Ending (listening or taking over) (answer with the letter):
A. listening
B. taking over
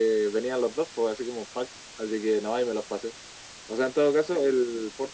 A